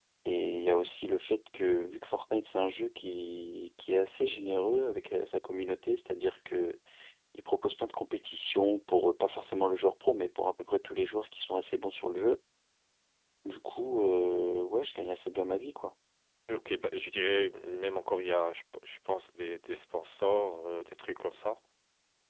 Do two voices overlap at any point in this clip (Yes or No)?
No